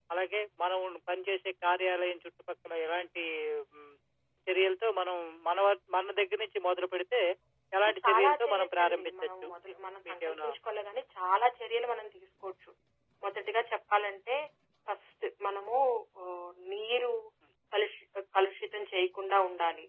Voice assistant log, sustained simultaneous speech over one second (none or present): present